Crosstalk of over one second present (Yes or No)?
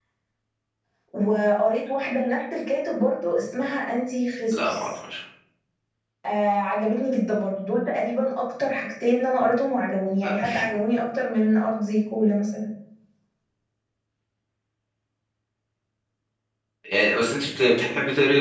No